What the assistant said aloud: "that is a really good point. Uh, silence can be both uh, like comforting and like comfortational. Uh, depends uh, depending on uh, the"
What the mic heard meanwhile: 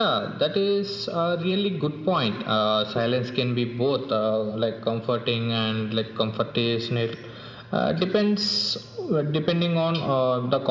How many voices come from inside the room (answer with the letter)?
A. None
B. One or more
A